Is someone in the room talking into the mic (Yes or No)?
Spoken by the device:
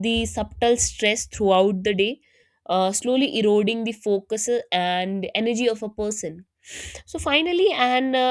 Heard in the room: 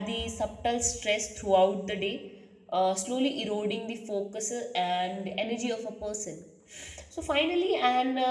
No